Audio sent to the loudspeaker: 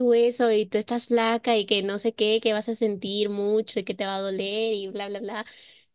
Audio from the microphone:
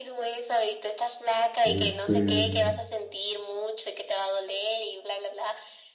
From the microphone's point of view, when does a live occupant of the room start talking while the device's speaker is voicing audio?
1.6 s

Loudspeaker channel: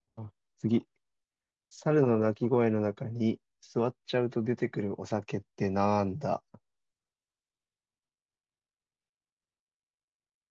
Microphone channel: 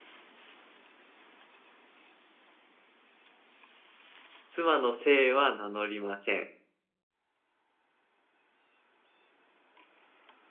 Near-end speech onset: 4.5 s

